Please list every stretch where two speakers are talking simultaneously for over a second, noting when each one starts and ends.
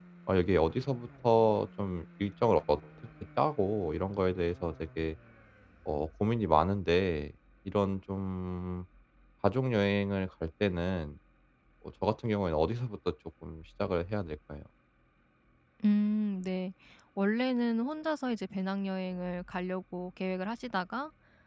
none

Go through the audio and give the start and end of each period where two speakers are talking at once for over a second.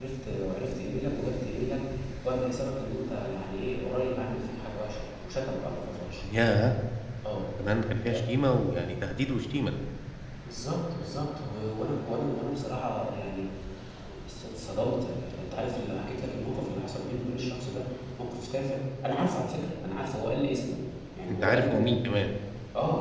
none

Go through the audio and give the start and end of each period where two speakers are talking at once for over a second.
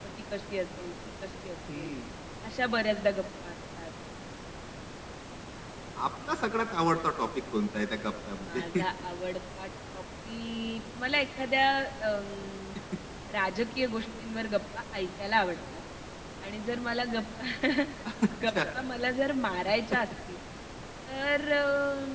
none

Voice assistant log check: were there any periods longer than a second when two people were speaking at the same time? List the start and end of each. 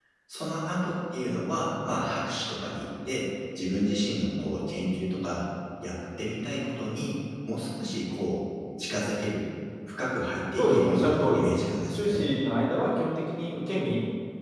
10.6-12.3

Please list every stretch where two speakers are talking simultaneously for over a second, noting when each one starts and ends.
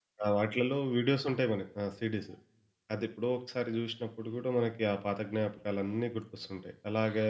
none

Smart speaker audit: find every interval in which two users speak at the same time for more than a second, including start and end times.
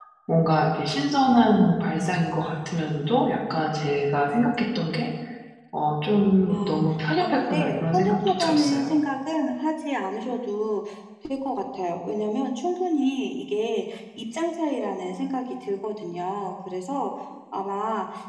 7.2-9.0

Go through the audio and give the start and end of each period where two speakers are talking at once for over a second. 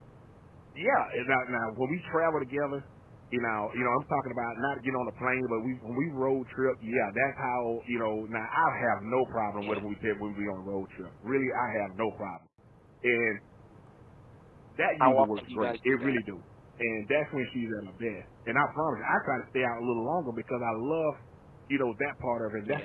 15.0-16.2

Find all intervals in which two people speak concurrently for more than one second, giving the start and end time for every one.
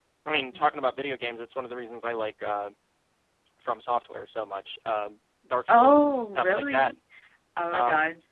5.7-6.9

